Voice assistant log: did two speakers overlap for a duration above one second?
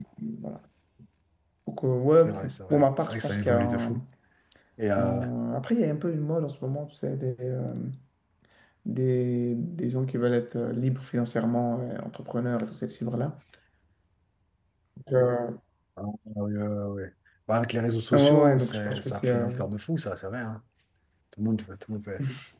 Yes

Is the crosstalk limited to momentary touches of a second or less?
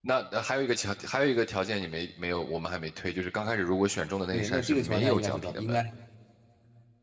No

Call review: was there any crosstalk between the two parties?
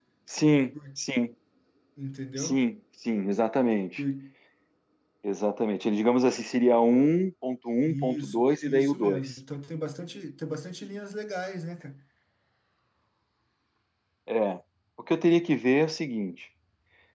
Yes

